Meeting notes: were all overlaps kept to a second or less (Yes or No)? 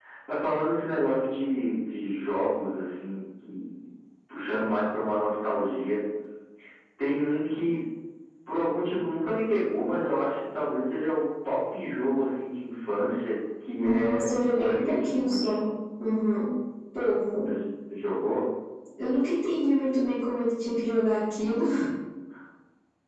No